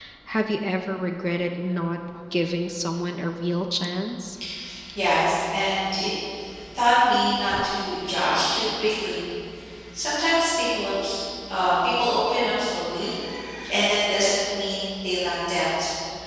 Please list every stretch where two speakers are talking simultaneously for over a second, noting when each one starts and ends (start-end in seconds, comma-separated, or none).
none